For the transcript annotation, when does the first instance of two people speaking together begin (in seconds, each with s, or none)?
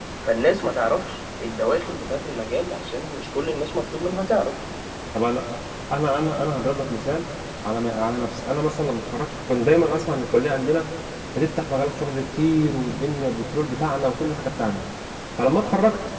none